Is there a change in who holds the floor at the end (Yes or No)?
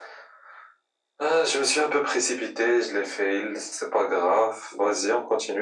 No